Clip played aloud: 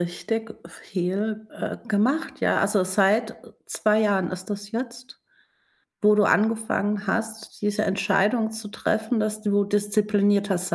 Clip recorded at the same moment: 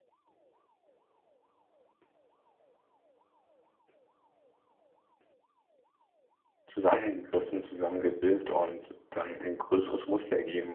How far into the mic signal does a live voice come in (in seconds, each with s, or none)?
6.7 s